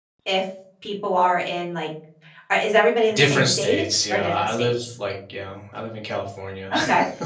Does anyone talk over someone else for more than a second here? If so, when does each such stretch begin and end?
3.1-4.9

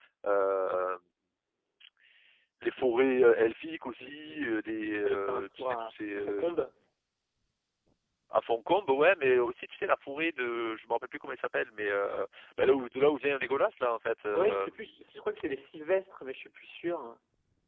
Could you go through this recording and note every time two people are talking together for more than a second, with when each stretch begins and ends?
5.0-6.2

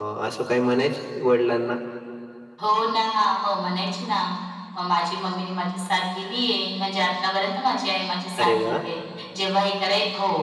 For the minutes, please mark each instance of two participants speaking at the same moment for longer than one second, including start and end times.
none

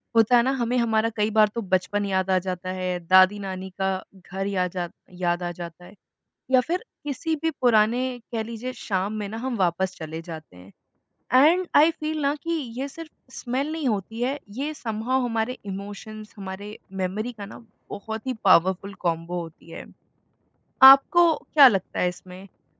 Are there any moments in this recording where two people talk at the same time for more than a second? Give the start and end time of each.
none

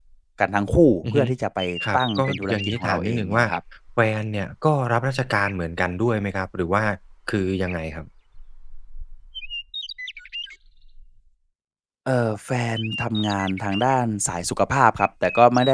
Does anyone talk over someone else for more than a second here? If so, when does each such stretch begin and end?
2.0-3.5

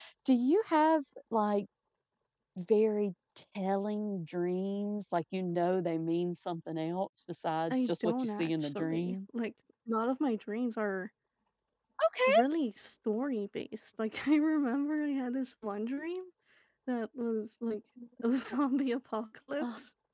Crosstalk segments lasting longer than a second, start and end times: 7.7-9.2

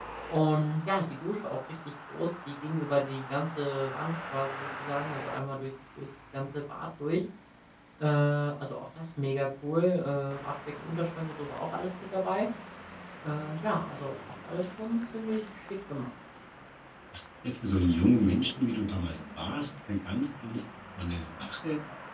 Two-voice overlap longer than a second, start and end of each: none

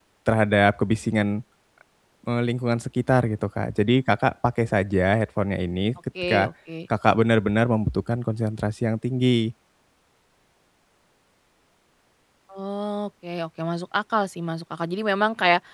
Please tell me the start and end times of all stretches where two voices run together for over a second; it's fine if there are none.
none

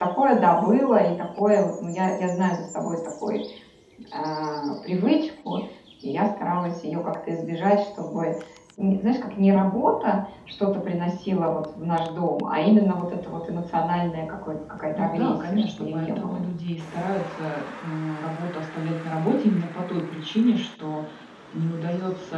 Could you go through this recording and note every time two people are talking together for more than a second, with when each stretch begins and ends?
14.9-16.4

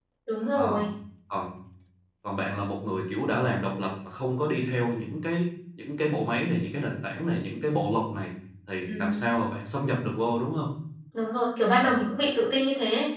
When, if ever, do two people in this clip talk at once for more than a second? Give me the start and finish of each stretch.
none

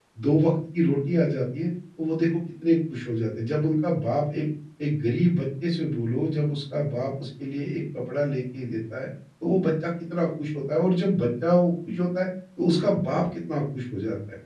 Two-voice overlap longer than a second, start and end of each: none

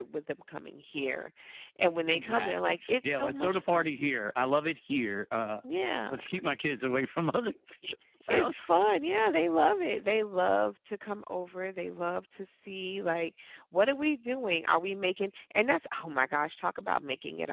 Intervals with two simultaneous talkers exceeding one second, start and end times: 2.1-3.9

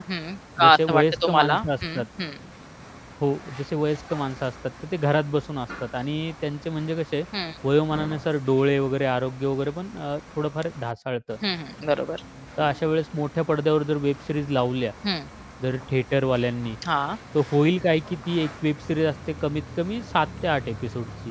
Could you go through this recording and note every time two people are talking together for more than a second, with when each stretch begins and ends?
0.6-2.0

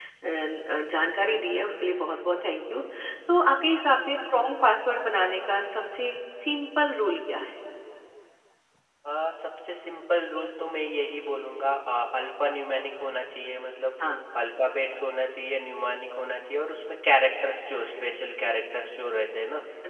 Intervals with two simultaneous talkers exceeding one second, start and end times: none

